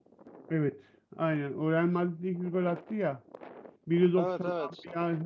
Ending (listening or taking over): listening